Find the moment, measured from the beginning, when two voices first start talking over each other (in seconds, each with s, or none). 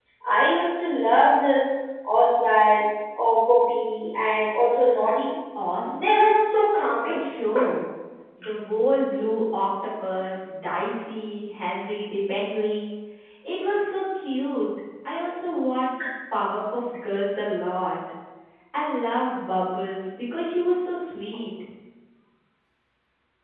5.9 s